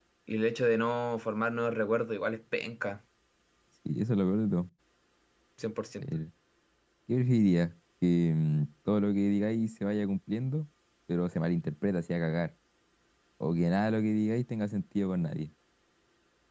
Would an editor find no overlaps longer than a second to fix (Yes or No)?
Yes